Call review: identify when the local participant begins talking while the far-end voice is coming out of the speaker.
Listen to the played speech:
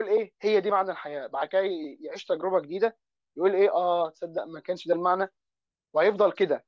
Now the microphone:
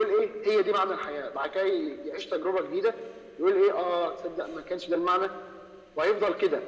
none

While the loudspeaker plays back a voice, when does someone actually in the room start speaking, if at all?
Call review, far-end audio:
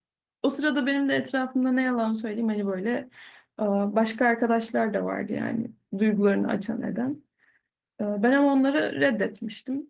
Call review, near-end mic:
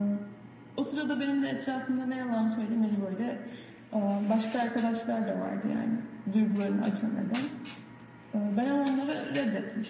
none

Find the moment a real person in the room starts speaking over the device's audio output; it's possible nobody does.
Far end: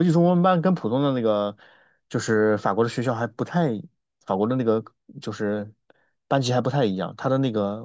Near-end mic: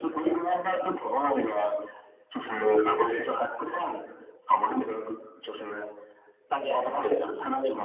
none

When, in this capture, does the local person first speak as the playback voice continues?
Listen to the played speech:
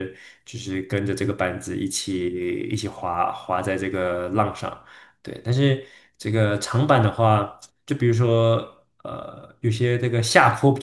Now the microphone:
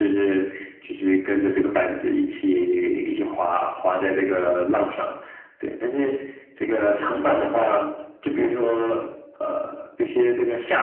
none

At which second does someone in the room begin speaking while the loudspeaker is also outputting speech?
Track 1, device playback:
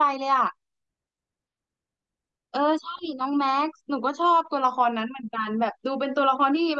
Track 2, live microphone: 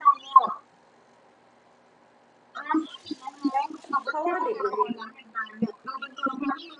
4.1 s

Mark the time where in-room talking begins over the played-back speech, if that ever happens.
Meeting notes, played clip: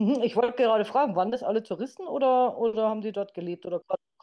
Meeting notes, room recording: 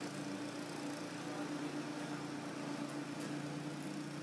none

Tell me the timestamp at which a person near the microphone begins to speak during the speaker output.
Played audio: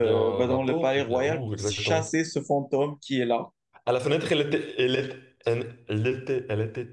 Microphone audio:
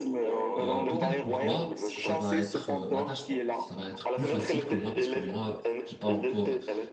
0.6 s

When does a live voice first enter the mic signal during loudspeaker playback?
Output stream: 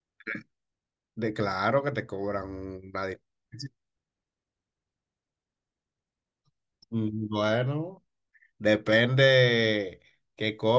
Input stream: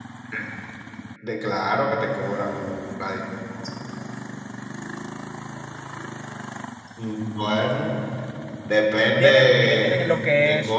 9.2 s

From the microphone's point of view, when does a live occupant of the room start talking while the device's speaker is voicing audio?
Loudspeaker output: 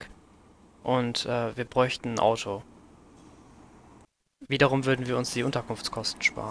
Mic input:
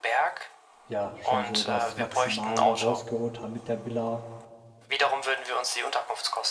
0.8 s

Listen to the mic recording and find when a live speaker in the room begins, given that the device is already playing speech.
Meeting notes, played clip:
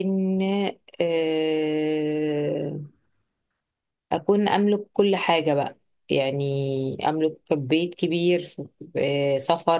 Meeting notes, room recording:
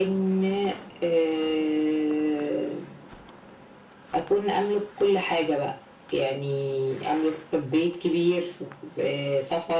none

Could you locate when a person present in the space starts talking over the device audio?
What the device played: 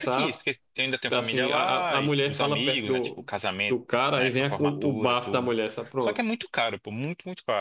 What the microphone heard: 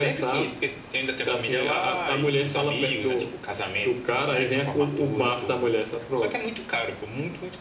none

